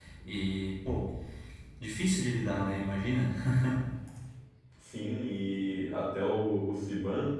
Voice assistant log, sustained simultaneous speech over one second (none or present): none